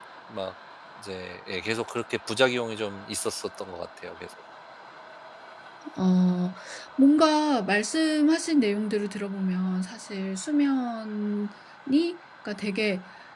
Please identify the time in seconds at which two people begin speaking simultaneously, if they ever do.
none

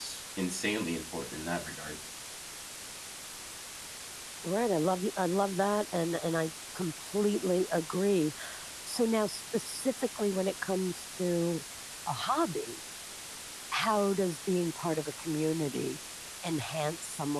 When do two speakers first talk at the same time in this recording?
none

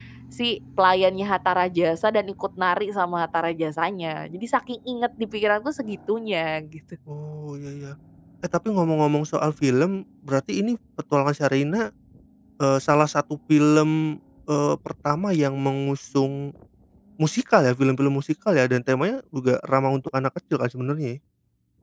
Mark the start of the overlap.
none

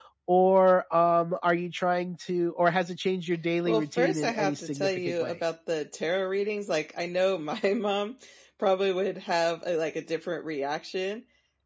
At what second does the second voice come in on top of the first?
3.7 s

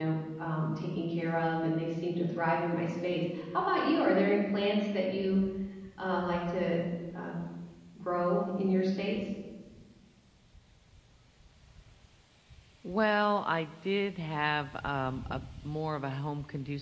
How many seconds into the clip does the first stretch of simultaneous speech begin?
none

